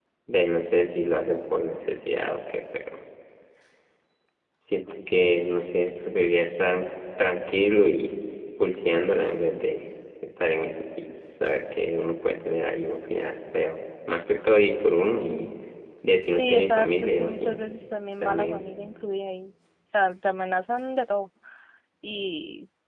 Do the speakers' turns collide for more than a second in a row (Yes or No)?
Yes